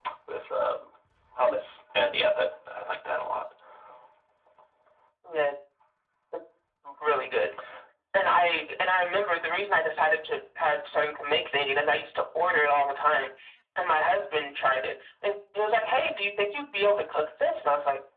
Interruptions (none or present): none